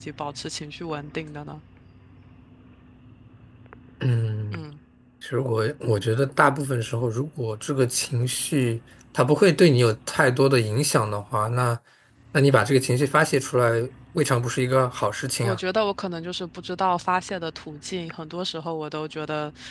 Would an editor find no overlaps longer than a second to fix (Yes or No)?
Yes